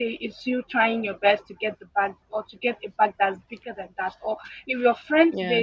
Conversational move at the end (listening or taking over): listening